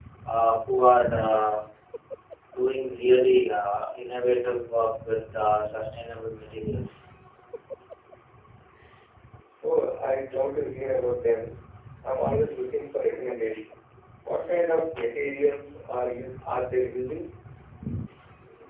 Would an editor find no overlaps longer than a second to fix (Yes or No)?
Yes